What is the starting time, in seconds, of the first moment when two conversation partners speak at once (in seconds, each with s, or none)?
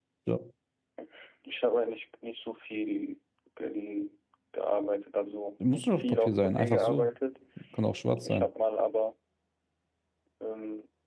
5.7 s